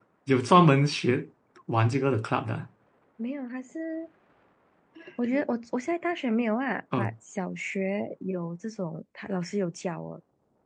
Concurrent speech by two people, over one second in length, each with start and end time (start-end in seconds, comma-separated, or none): none